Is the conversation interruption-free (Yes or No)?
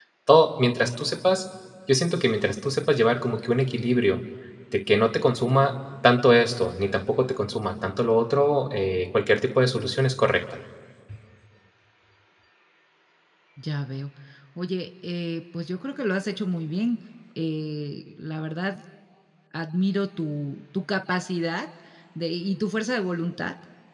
Yes